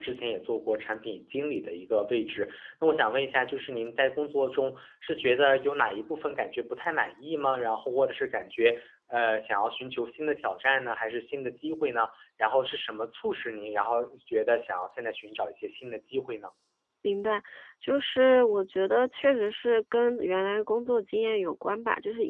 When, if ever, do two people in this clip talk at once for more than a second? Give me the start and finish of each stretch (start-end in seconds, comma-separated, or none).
none